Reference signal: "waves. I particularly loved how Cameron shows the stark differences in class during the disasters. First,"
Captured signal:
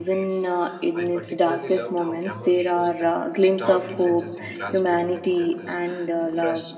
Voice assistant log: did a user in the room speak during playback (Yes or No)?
Yes